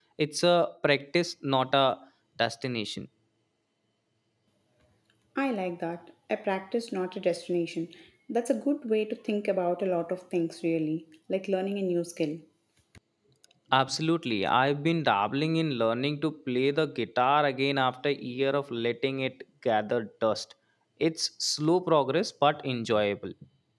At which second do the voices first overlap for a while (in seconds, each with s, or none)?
none